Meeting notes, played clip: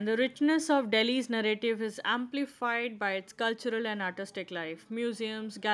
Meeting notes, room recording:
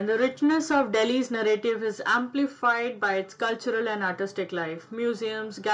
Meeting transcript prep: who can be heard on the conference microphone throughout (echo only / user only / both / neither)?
echo only